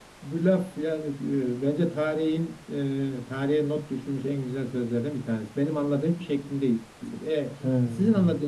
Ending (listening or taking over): listening